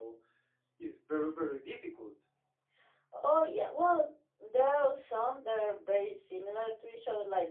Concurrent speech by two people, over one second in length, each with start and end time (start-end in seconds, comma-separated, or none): none